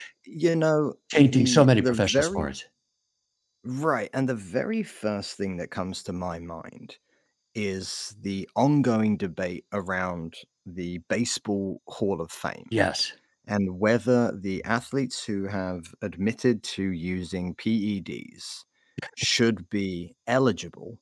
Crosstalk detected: Yes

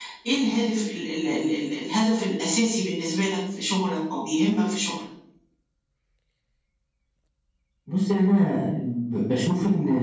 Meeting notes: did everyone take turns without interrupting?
Yes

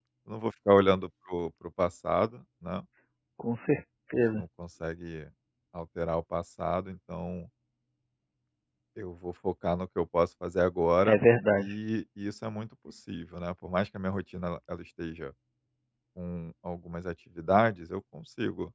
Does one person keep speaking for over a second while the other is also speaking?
No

